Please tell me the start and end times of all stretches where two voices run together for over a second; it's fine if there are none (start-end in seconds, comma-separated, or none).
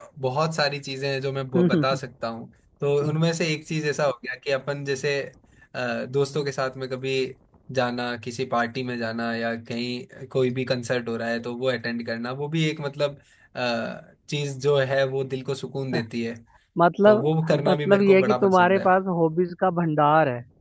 17.7-18.9